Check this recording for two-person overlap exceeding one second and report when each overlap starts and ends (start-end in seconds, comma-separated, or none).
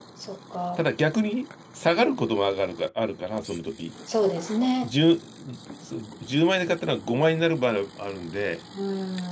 none